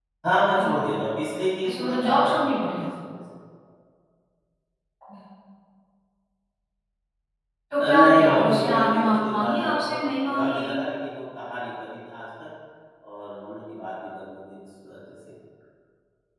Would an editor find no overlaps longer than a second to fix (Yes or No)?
No